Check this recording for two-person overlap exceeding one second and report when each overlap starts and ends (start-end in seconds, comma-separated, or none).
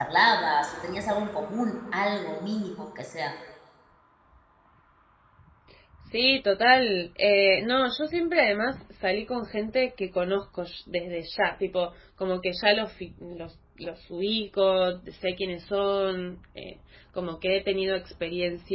none